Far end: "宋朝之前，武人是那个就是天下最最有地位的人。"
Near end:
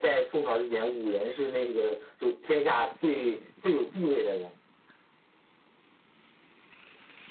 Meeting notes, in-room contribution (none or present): none